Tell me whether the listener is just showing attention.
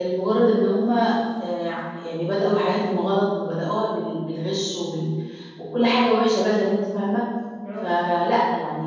Yes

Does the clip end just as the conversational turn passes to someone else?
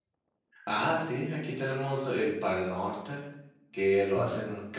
No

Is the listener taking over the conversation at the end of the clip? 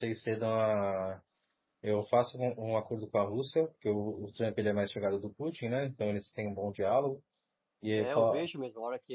Yes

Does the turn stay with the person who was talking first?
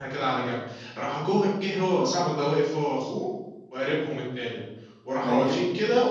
Yes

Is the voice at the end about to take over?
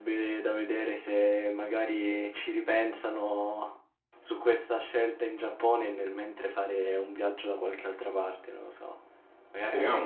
Yes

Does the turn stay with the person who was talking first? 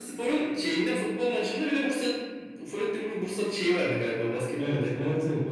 No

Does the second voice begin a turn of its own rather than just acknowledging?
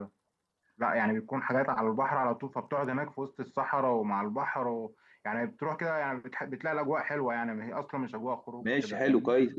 Yes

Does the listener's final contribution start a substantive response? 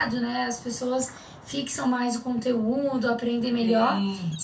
No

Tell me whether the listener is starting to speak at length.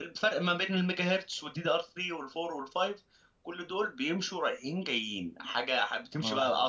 No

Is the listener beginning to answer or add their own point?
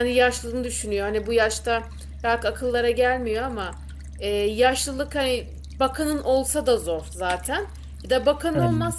No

